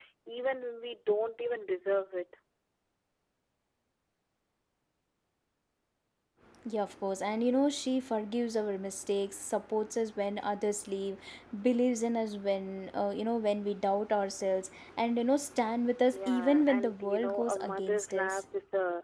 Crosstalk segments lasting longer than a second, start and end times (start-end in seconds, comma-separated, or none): 16.1-18.4